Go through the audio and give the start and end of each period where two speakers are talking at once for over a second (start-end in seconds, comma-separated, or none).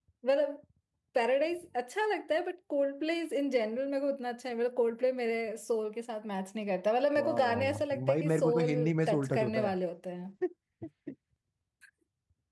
7.2-9.7